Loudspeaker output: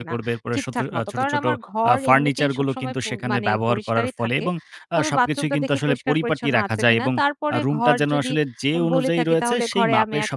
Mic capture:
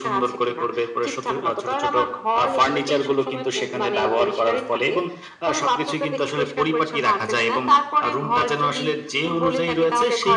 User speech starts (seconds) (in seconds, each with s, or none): none